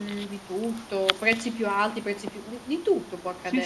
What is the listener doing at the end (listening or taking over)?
taking over